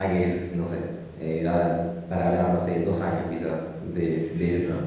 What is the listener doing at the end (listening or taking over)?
taking over